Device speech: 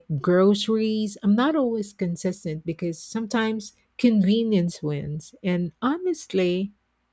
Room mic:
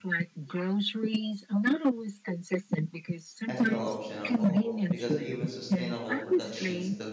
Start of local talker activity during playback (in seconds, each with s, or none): 3.5 s